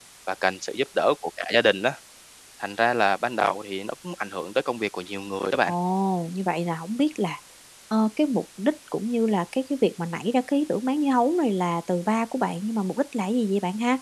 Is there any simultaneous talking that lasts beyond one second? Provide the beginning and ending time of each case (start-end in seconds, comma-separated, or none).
none